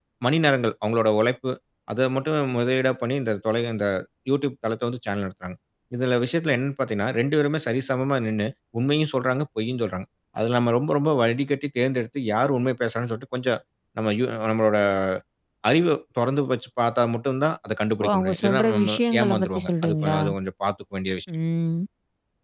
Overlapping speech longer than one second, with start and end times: 18.0-20.2

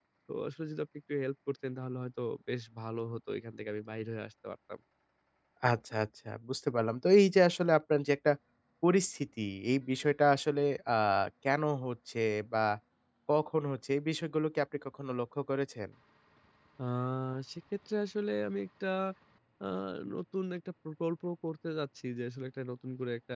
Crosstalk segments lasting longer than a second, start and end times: none

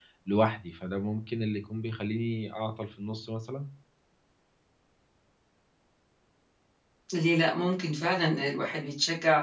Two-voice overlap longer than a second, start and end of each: none

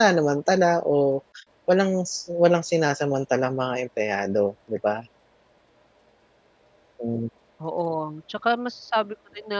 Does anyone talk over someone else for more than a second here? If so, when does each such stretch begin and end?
none

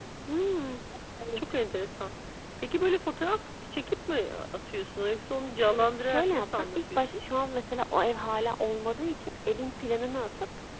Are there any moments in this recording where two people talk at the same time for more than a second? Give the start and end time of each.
5.7-7.2

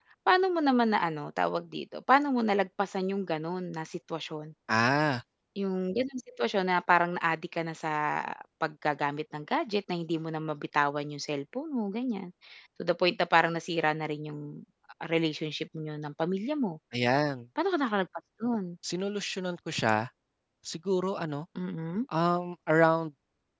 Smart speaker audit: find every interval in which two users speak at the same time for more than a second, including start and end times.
none

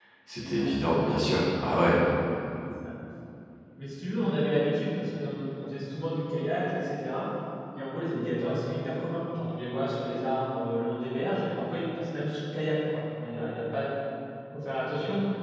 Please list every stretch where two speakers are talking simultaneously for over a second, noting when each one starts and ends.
none

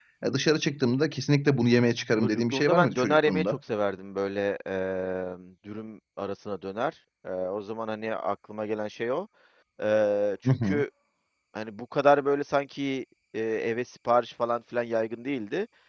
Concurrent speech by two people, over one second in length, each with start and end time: 2.2-3.6

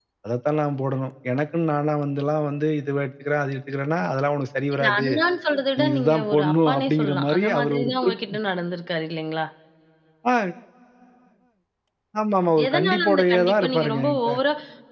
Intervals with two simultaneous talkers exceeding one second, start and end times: 5.8-8.1, 12.7-14.3

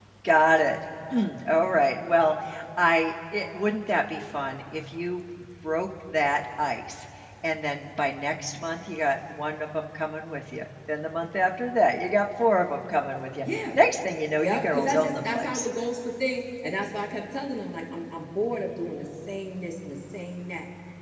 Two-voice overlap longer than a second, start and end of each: 14.4-15.7

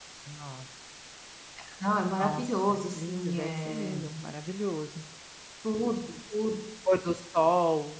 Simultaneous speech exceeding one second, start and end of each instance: 2.2-4.0

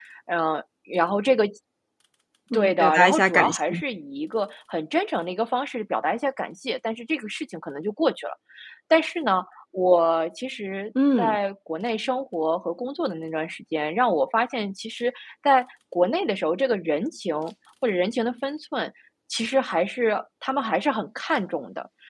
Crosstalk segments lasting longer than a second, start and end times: 2.5-3.8

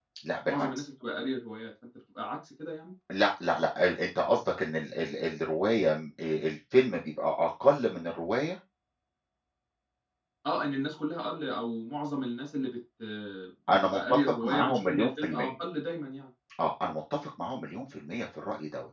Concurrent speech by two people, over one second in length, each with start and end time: 13.8-15.5

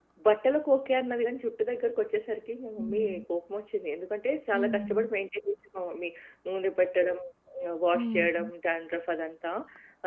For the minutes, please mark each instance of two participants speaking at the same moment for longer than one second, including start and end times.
none

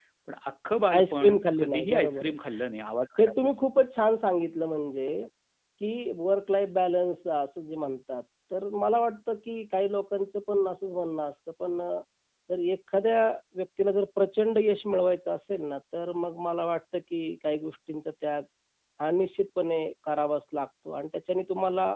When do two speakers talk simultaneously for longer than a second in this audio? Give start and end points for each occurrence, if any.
0.9-2.3

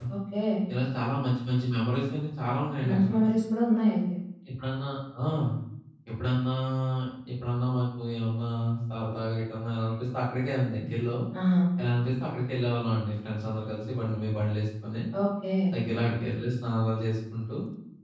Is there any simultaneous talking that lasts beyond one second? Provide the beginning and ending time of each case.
none

